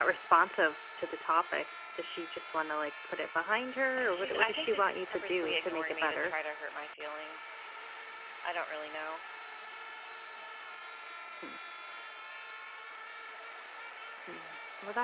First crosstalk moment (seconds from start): 4 s

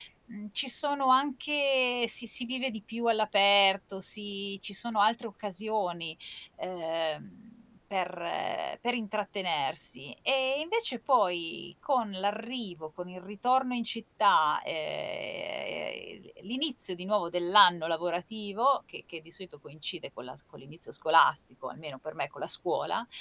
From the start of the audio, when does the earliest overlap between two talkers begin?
none

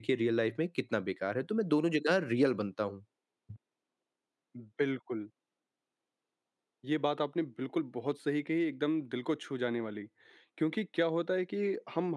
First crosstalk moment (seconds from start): none

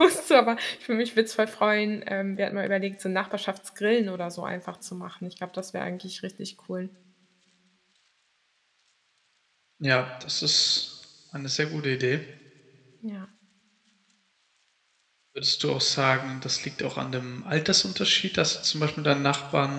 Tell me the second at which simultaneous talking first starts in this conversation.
none

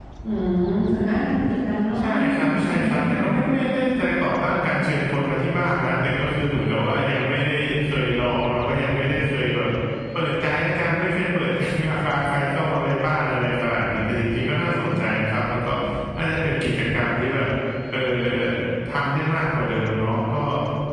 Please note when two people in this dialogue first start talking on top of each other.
2 s

